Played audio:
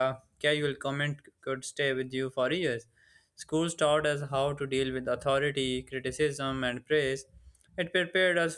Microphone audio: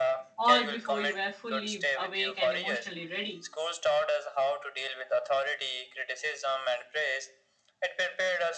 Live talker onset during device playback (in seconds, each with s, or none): 0.4 s